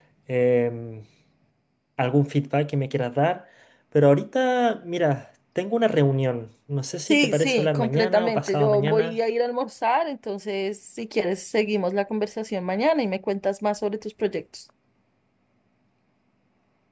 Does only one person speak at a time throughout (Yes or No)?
No